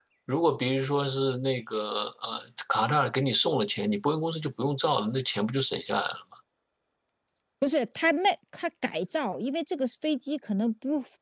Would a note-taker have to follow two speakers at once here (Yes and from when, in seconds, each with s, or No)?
No